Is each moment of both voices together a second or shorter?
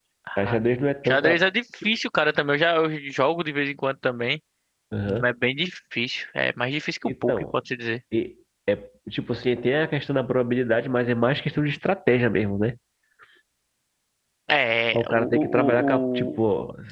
No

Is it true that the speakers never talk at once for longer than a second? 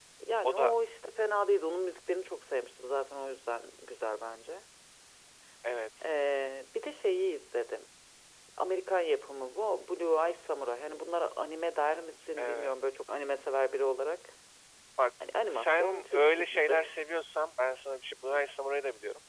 No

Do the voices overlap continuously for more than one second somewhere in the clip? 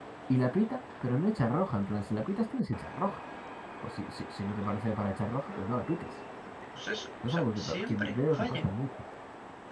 Yes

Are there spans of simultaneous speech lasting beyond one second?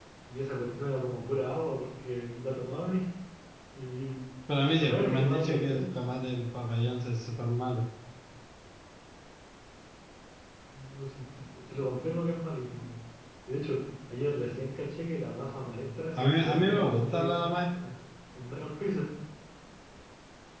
Yes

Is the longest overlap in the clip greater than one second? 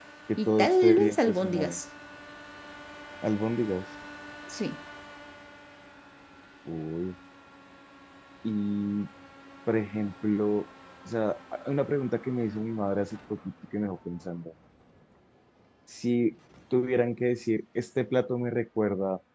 Yes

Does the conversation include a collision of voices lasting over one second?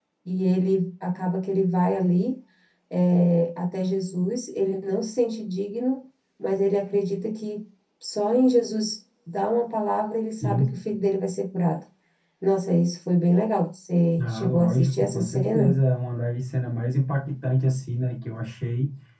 Yes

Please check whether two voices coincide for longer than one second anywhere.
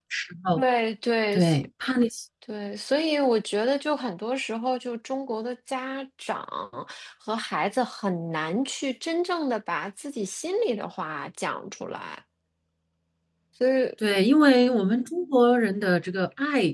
No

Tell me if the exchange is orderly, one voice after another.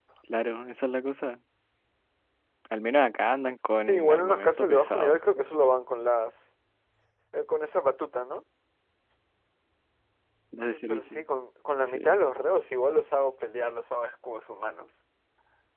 No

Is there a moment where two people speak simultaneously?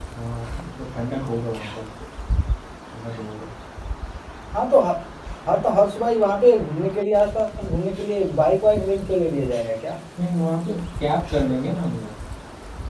No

